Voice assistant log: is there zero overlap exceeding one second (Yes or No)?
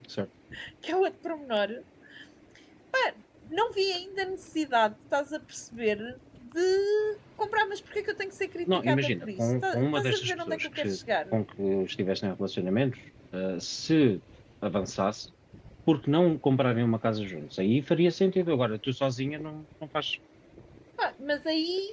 No